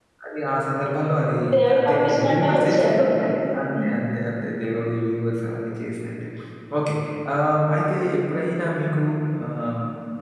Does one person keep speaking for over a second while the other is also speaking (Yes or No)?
Yes